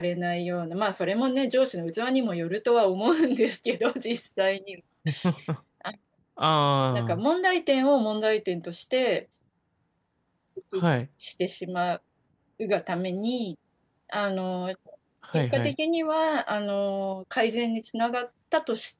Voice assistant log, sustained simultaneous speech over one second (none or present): none